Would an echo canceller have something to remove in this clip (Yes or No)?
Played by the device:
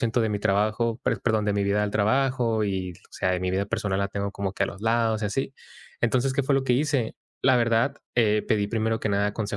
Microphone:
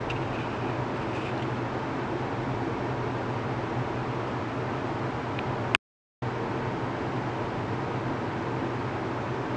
No